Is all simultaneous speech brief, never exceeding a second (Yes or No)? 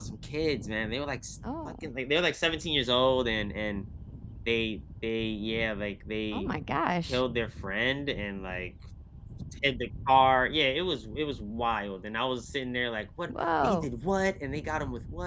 Yes